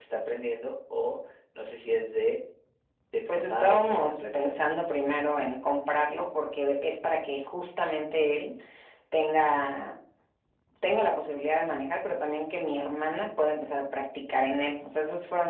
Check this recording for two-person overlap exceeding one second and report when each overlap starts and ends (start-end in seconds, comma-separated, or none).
3.3-4.6